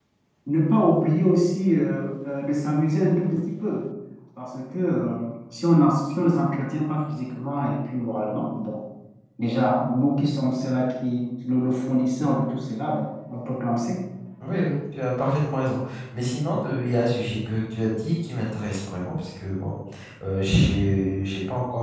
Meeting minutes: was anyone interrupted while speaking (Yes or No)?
No